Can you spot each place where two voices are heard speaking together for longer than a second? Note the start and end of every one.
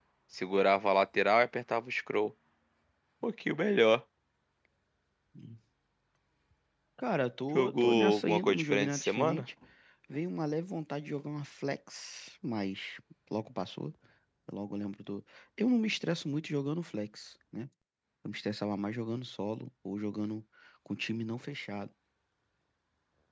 7.5-9.5

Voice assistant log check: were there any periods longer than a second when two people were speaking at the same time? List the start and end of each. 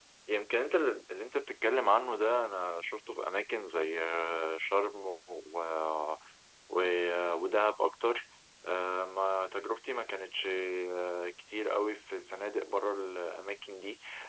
none

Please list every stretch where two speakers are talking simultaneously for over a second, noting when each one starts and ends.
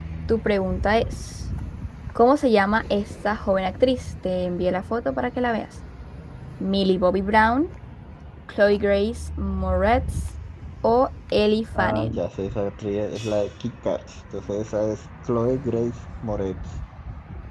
none

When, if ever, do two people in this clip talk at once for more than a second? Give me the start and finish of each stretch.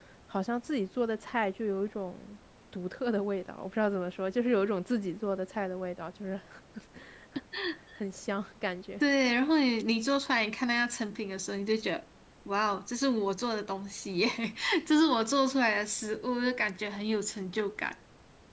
none

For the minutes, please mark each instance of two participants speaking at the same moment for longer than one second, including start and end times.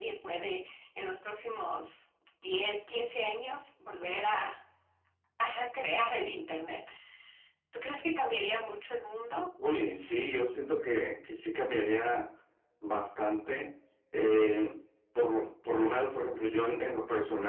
none

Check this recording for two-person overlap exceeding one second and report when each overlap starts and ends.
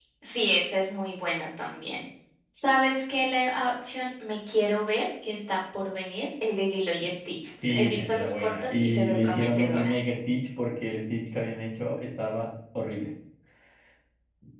7.6-9.9

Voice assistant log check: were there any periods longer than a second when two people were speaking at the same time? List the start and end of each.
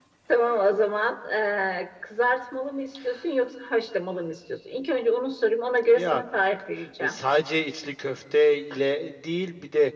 none

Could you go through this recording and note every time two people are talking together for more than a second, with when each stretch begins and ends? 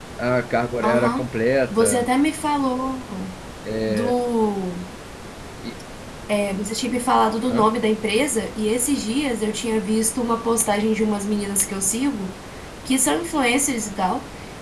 none

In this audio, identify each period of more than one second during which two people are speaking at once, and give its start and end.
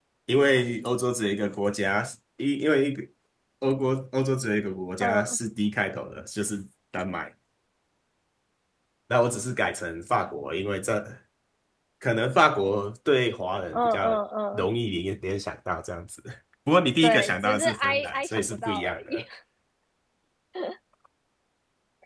17.0-19.2

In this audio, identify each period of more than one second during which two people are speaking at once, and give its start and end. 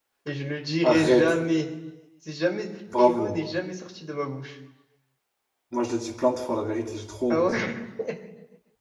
none

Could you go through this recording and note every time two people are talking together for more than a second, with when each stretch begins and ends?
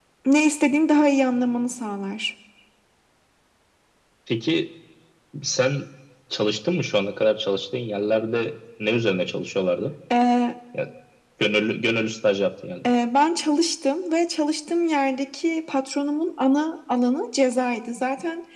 none

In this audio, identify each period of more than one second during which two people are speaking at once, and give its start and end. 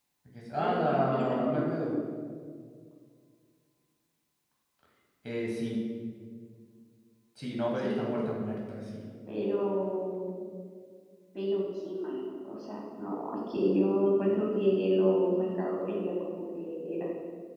0.6-2.0

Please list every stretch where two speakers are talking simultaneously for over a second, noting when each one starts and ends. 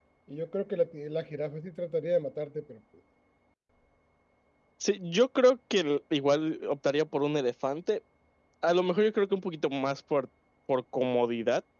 none

